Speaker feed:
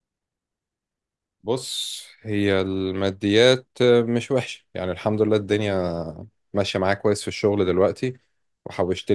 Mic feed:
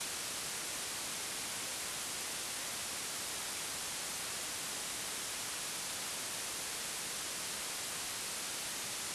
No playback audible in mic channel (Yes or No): Yes